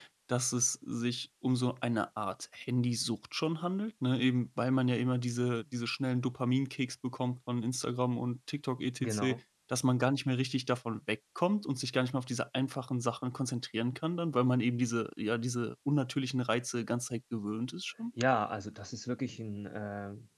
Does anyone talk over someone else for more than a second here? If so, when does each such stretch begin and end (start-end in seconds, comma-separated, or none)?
none